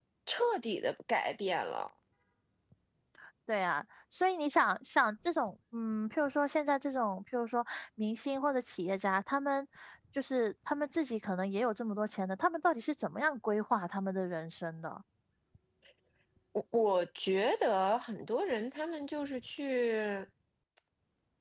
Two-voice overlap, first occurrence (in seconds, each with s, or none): none